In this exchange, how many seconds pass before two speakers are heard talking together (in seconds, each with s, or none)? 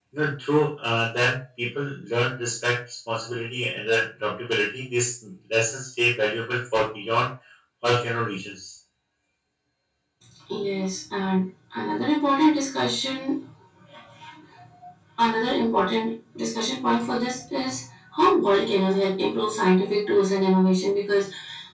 none